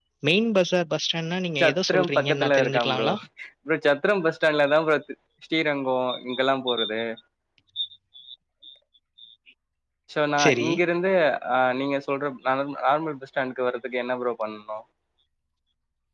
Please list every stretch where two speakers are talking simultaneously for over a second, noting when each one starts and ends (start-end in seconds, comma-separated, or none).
1.6-3.1